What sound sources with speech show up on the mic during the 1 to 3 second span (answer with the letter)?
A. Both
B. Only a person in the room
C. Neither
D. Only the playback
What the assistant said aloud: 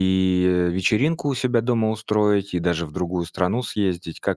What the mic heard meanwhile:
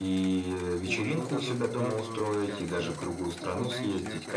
A